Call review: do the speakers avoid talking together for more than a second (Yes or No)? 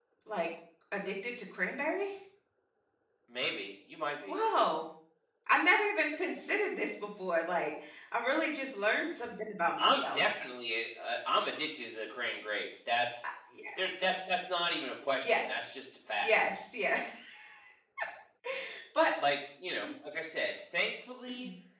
Yes